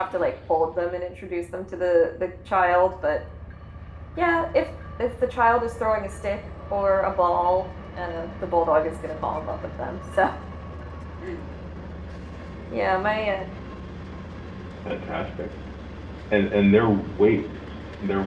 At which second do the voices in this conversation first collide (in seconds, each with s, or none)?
none